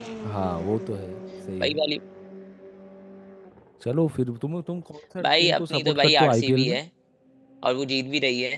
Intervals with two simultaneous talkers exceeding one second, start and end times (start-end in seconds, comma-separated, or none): 5.2-6.8